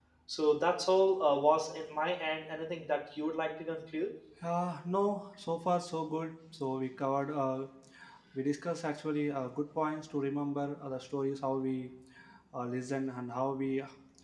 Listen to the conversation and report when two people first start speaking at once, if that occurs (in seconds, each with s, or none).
none